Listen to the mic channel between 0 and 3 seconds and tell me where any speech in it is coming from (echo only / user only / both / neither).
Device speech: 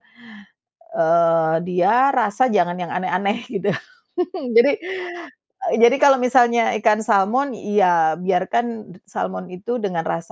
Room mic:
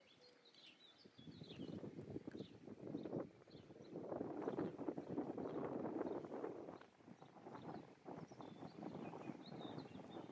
neither